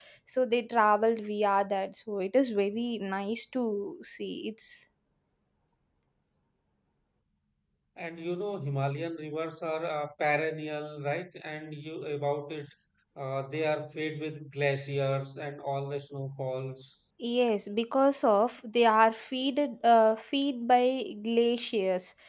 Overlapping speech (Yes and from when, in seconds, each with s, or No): No